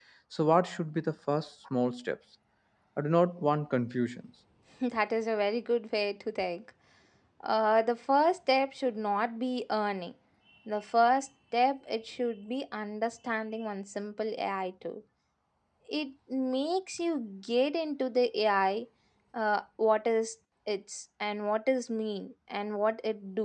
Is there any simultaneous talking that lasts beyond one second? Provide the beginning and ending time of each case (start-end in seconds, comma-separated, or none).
none